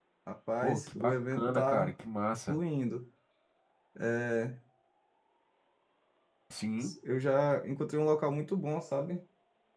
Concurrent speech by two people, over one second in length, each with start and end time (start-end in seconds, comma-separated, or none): 0.6-1.9